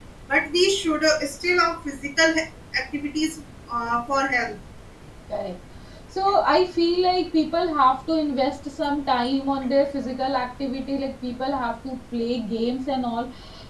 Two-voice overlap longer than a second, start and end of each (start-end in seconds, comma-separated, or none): none